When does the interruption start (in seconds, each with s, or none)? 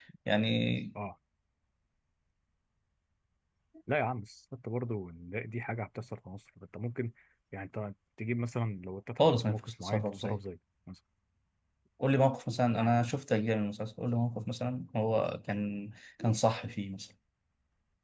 9.2 s